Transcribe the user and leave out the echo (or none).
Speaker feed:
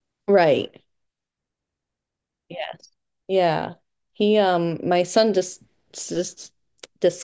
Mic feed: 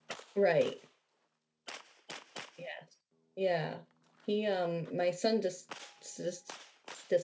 none